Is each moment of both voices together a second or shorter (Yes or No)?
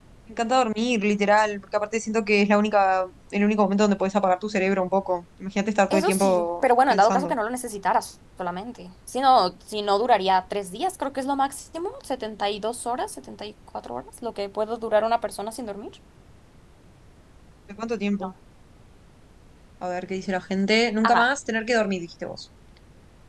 No